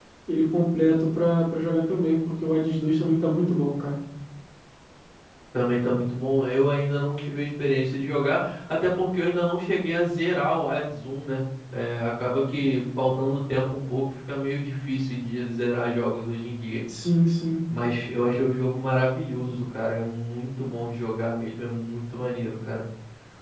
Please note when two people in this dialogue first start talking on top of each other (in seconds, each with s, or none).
none